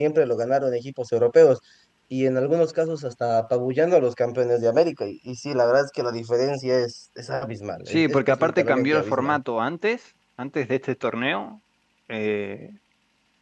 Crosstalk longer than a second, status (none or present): present